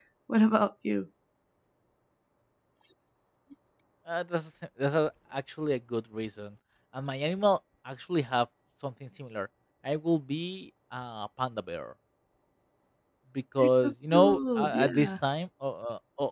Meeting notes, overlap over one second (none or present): present